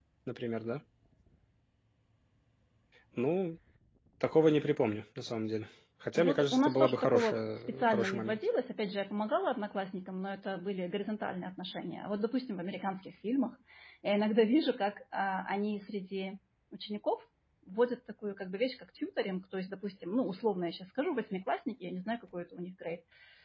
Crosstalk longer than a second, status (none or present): present